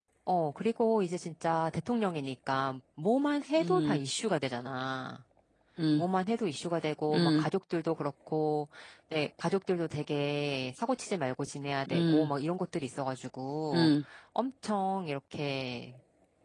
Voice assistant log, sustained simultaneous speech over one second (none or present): none